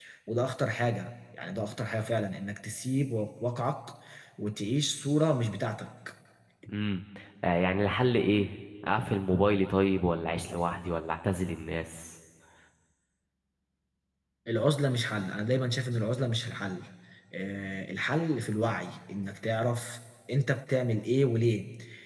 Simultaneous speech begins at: none

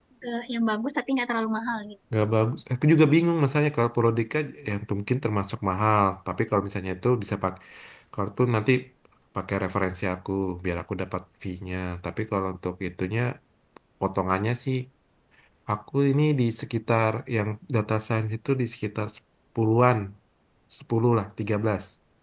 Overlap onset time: none

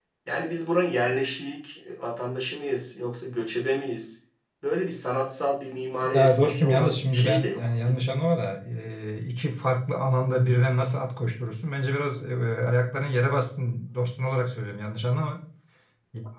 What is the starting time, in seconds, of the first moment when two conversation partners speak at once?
6.1 s

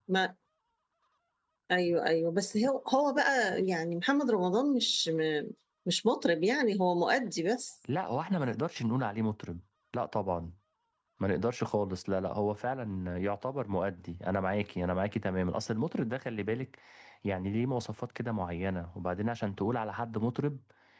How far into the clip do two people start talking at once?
none

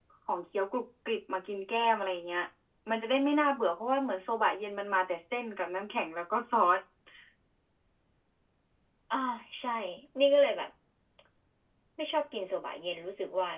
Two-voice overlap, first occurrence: none

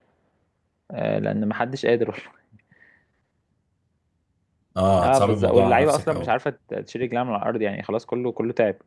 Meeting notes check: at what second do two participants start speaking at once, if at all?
5.0 s

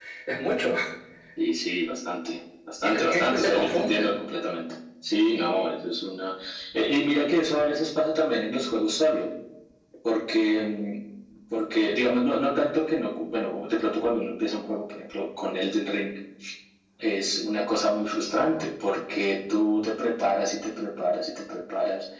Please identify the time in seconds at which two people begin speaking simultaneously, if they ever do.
2.8 s

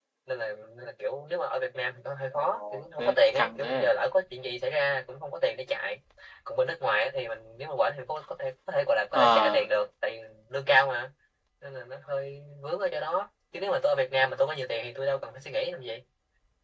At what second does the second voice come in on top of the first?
2.4 s

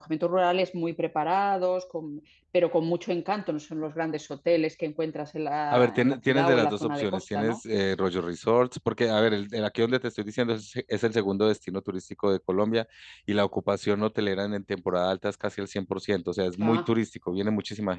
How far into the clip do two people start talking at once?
5.7 s

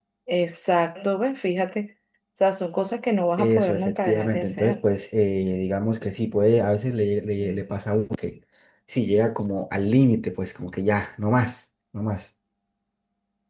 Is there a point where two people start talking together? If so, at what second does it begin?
3.4 s

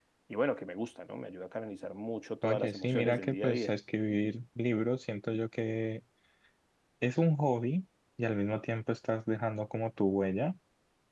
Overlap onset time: 2.4 s

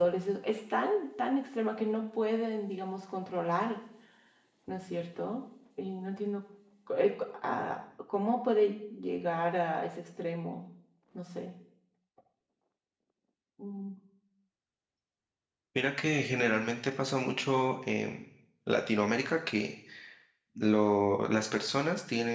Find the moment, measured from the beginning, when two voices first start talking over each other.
none

